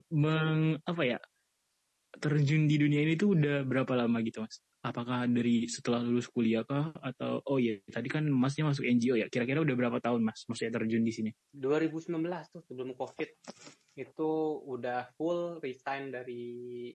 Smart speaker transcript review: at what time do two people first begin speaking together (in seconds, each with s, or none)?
none